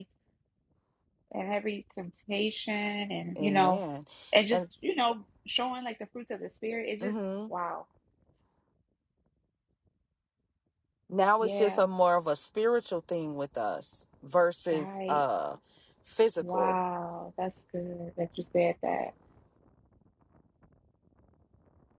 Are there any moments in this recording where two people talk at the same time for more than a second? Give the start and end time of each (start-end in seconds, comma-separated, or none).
none